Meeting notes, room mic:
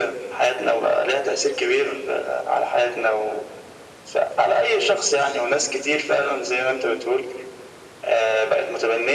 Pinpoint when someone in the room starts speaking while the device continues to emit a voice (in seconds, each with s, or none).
none